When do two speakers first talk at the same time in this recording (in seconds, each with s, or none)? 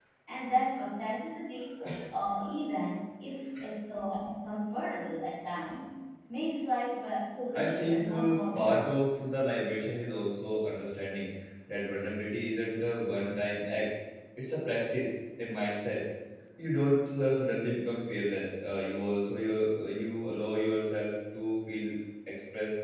7.5 s